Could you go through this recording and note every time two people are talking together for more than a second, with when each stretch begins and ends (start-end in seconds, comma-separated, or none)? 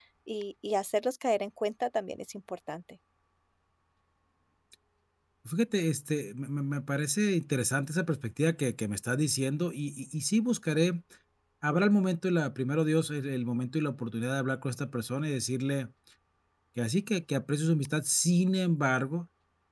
none